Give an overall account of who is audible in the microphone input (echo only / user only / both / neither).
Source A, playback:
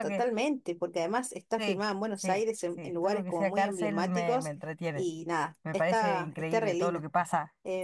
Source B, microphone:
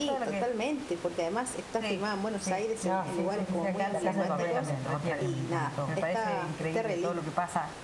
both